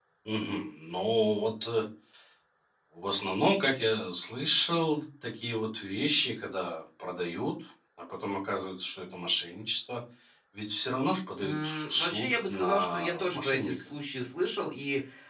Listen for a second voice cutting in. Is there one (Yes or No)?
Yes